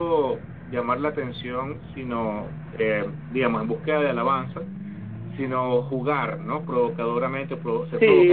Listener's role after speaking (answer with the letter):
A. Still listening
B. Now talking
B